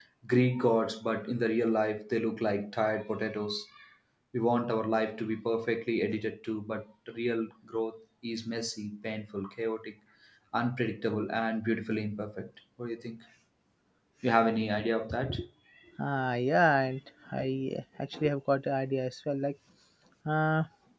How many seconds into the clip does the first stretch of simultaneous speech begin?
none

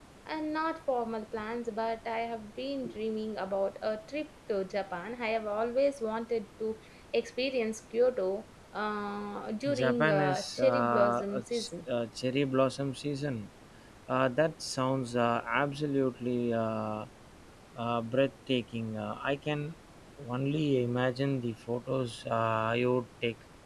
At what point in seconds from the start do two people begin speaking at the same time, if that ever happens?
10 s

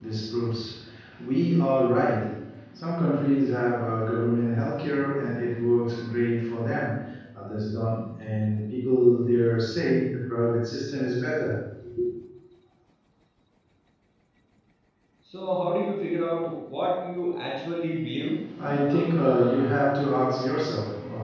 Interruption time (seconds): none

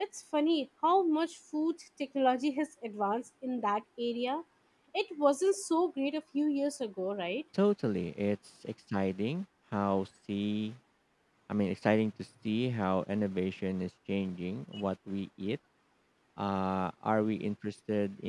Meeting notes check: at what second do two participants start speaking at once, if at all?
none

